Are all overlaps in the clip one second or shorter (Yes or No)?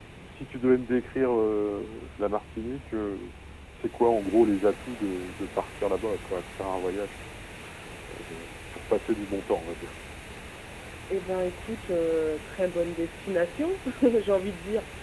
Yes